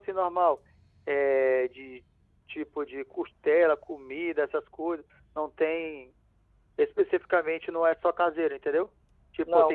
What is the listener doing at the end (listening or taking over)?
taking over